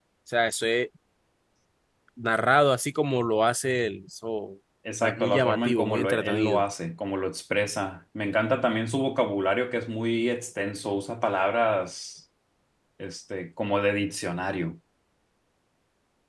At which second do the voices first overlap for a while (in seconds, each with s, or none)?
4.8 s